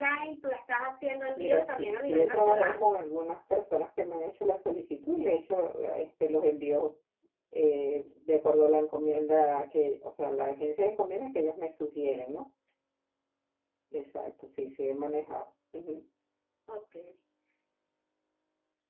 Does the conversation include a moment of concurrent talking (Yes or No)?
Yes